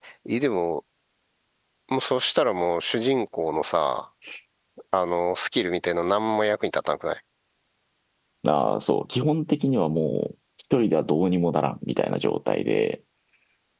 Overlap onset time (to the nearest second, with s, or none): none